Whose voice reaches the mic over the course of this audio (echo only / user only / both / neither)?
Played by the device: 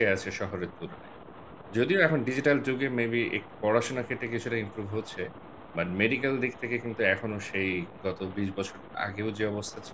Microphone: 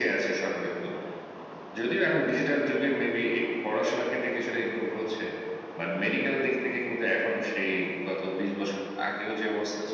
echo only